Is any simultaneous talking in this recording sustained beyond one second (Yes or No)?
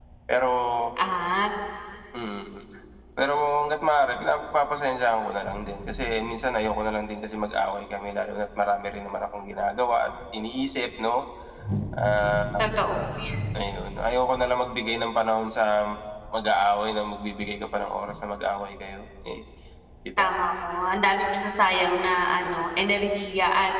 No